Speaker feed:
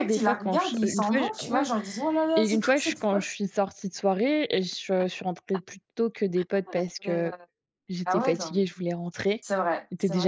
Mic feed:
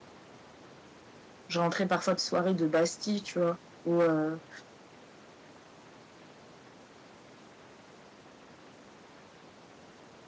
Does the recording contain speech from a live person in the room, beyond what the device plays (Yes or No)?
Yes